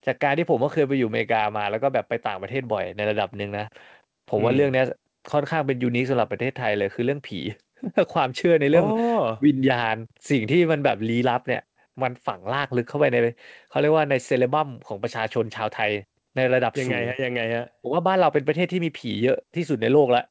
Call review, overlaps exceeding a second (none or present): none